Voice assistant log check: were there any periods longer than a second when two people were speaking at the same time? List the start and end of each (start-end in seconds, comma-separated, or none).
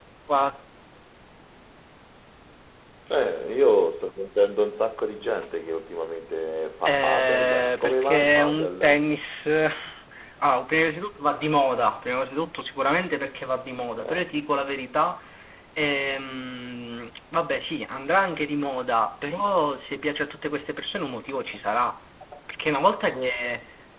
6.8-9.0